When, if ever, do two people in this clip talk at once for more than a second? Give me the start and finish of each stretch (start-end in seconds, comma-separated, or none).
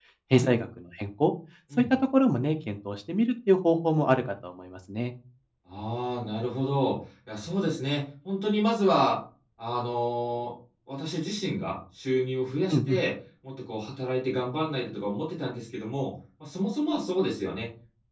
none